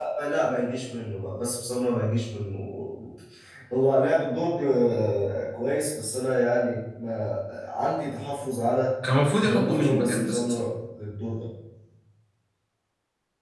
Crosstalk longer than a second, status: present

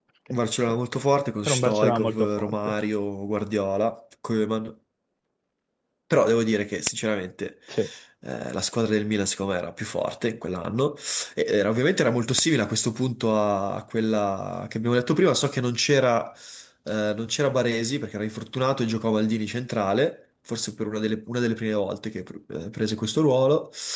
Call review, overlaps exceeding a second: present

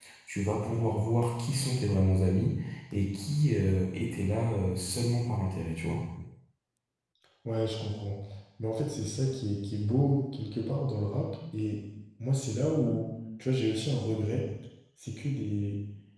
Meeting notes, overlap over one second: none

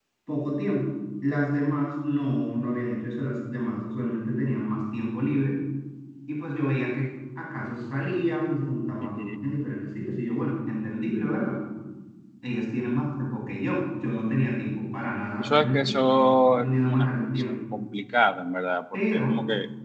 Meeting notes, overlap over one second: present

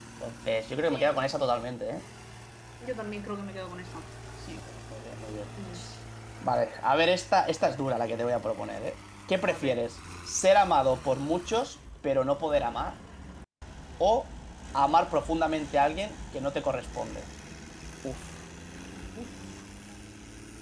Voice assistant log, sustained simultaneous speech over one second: none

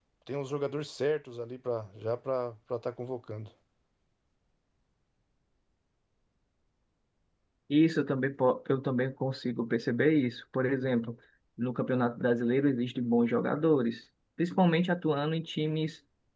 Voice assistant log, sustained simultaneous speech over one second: none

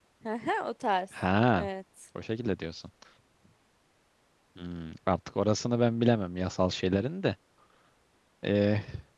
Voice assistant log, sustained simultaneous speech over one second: none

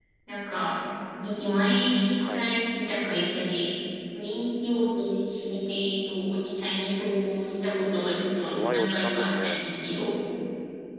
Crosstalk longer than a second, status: present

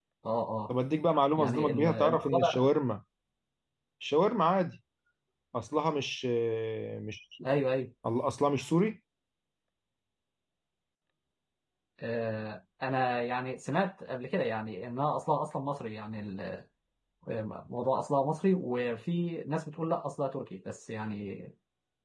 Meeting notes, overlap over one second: present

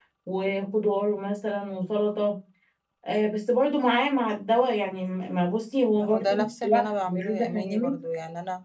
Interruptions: present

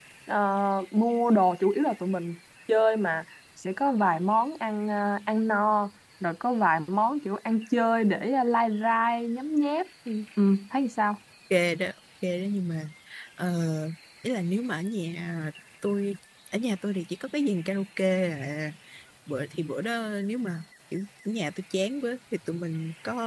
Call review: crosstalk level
none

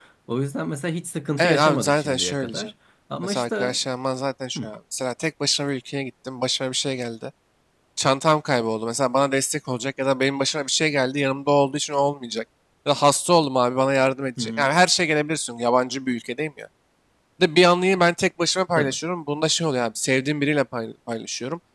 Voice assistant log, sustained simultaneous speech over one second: present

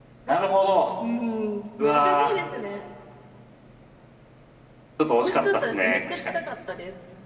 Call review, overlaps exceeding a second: present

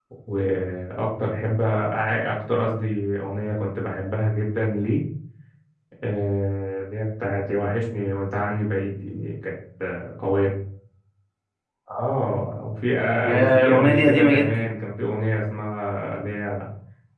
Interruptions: present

